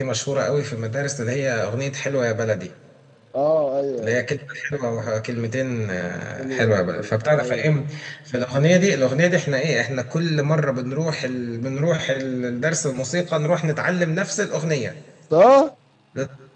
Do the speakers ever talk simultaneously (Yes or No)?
Yes